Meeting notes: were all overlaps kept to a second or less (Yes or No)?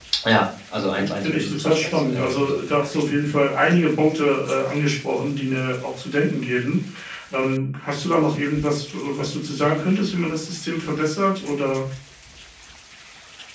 No